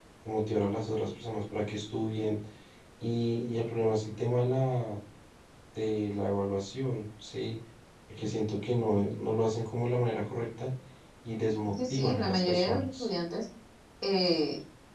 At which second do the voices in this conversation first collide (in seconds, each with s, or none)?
11.7 s